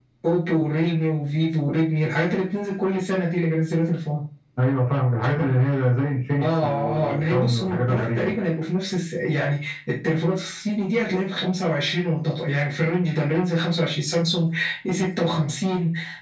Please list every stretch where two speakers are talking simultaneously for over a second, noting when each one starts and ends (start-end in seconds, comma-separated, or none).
6.4-8.3